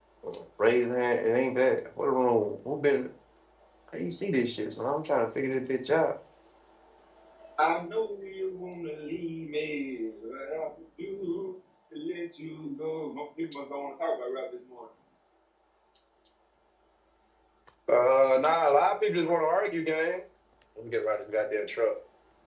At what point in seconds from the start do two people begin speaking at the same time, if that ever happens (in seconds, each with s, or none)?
none